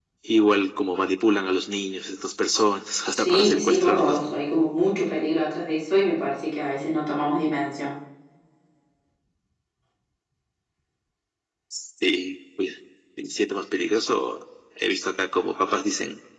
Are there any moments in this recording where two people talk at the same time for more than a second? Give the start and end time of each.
3.1-4.4

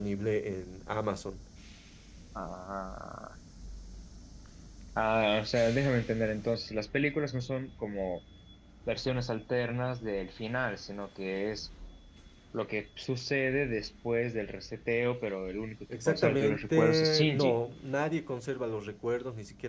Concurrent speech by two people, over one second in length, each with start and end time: 16.1-17.6

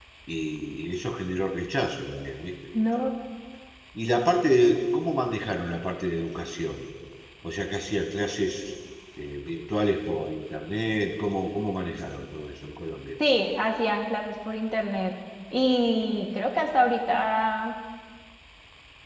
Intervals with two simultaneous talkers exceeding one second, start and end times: none

